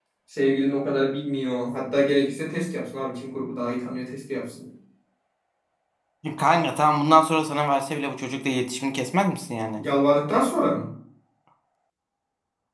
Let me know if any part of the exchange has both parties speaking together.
No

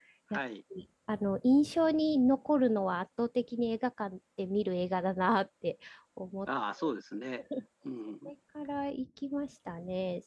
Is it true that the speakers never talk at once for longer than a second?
Yes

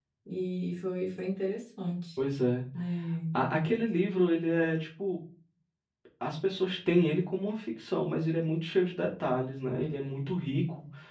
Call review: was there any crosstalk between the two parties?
No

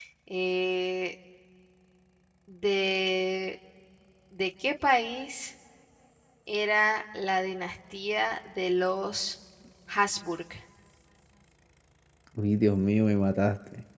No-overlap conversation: Yes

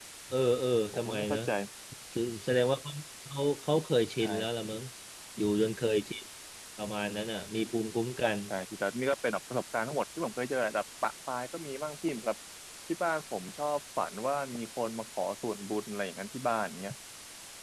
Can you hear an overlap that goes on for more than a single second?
No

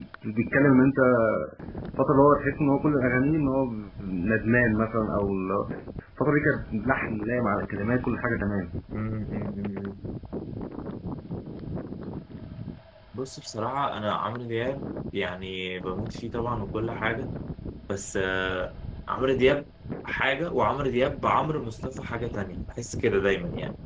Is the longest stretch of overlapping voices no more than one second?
Yes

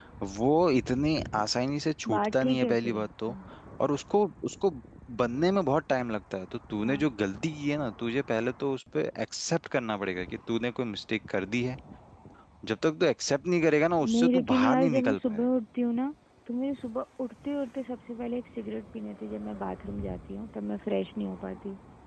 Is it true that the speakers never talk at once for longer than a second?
No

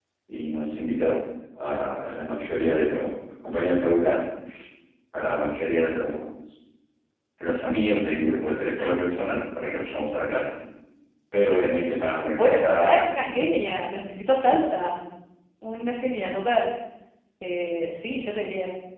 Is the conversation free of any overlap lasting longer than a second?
No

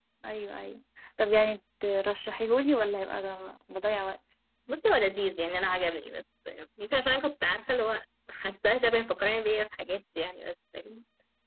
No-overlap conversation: Yes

